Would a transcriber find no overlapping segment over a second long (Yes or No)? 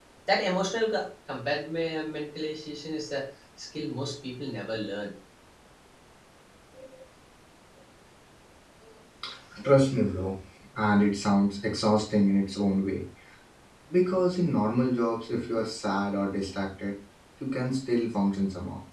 Yes